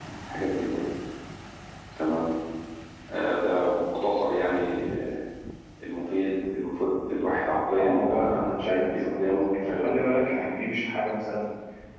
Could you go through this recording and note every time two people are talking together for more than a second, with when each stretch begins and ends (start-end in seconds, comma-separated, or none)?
7.8-10.1